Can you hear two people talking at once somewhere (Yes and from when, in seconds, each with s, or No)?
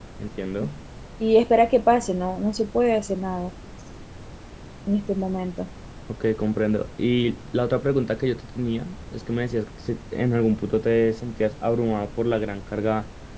No